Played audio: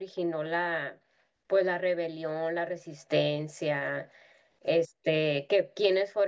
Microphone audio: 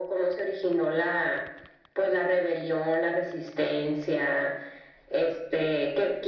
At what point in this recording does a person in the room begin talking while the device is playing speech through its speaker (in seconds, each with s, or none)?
none